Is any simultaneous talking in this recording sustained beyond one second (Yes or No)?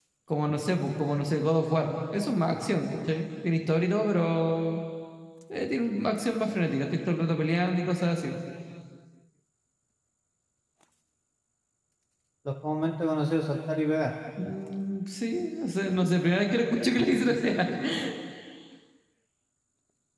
No